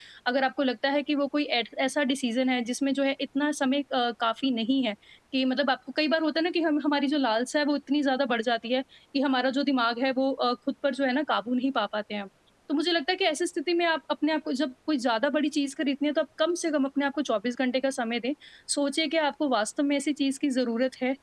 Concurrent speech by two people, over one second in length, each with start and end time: none

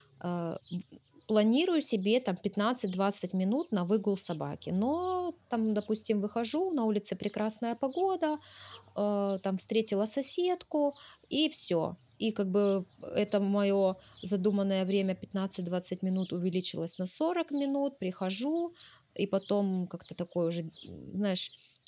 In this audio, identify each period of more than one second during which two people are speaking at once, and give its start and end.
none

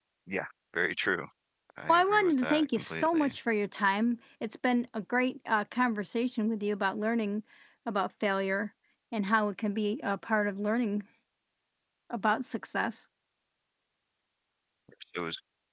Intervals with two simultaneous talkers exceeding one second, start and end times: 1.9-3.3

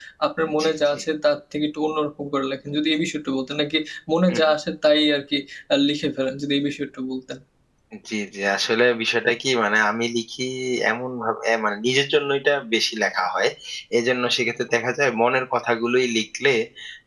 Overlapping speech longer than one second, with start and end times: none

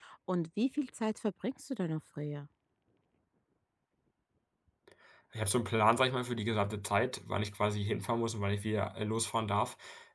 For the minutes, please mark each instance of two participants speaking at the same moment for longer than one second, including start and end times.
none

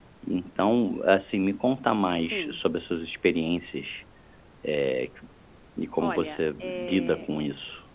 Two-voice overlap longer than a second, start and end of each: 6.0-7.3

